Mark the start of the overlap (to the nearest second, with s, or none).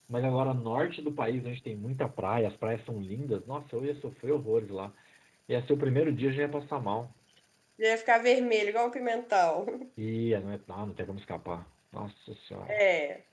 none